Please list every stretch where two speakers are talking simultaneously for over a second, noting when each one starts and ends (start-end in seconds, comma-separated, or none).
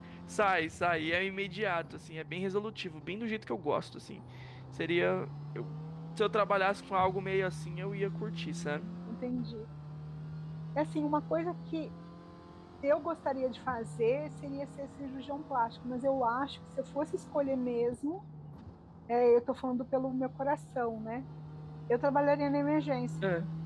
none